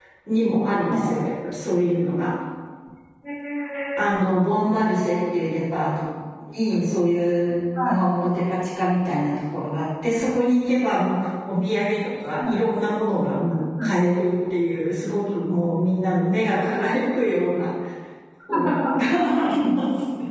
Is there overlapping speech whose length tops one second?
No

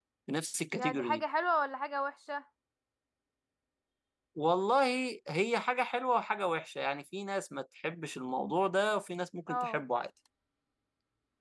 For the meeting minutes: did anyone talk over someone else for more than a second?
No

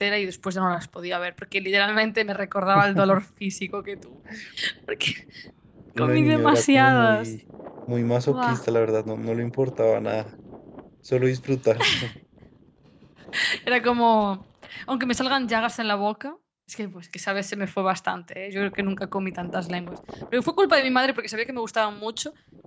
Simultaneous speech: Yes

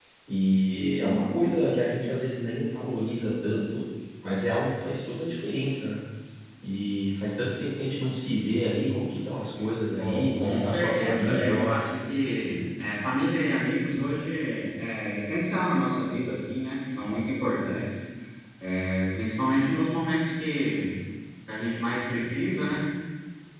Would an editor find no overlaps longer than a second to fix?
No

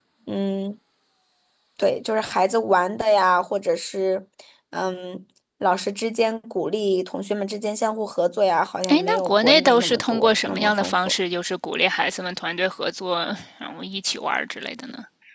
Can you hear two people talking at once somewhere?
Yes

